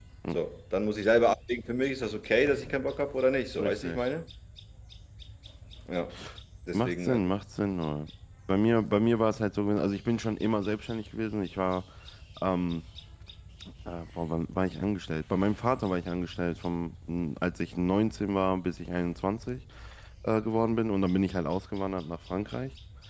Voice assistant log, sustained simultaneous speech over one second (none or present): none